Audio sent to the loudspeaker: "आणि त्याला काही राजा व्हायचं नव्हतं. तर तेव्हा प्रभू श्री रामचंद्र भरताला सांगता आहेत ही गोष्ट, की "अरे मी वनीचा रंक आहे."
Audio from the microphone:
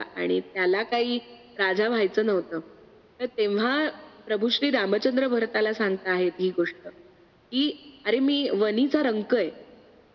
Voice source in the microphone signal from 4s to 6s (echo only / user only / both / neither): echo only